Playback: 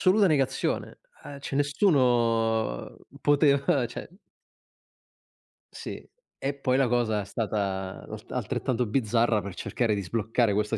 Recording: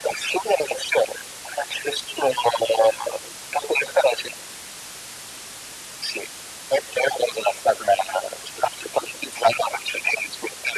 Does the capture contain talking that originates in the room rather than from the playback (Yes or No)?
No